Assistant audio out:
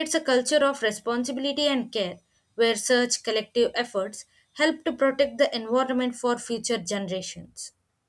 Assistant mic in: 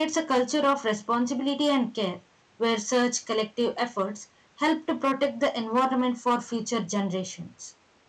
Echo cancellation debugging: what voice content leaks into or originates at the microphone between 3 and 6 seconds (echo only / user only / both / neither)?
echo only